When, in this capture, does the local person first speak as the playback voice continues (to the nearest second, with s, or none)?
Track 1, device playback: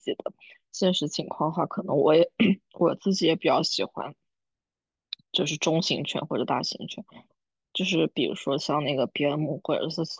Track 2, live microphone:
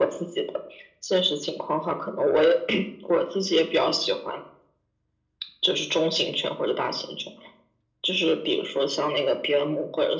none